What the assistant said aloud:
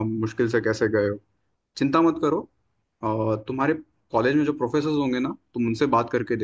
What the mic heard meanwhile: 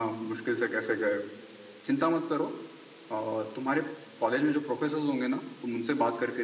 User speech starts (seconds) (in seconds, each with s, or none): none